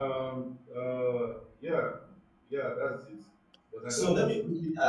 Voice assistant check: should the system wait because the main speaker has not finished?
No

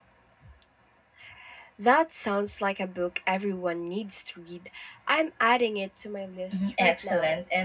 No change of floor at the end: No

